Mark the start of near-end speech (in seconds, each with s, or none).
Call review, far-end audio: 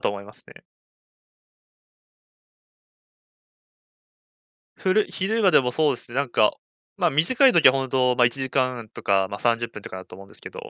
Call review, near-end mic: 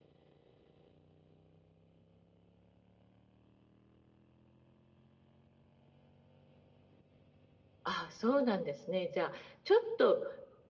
7.8 s